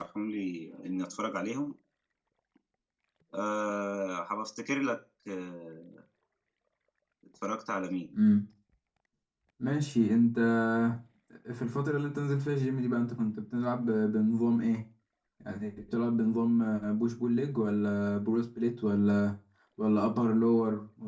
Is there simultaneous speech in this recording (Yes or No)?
No